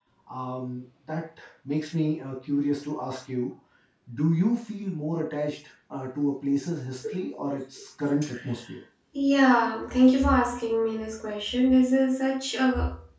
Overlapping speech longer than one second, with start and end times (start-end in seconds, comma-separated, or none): none